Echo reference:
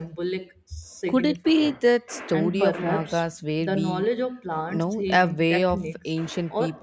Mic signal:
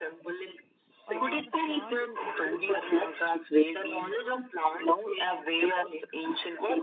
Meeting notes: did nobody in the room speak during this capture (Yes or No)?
No